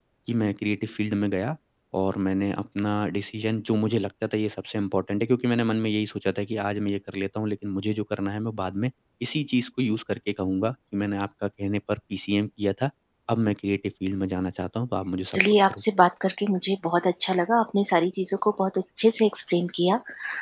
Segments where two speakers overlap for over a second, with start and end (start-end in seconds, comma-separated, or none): none